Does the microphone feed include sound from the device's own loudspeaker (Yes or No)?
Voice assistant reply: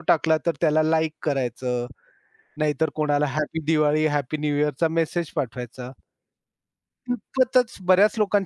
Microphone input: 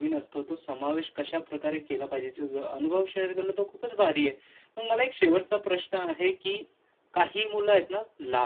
No